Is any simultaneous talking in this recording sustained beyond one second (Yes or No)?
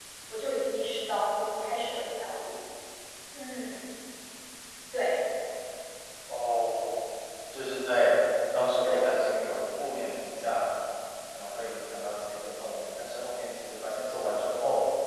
No